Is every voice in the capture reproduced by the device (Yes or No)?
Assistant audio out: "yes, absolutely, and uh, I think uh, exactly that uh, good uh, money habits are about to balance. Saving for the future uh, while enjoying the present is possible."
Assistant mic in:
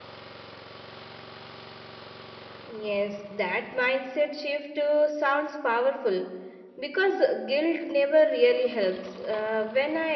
No